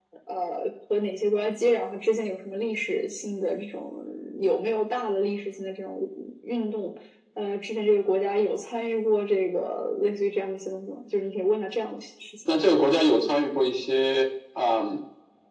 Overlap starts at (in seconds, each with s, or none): none